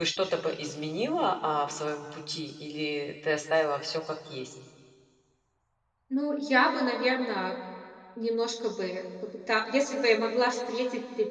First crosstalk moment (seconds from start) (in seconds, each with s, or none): none